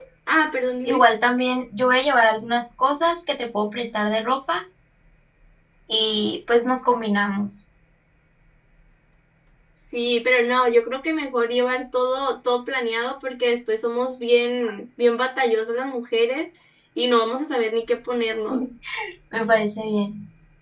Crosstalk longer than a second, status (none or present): none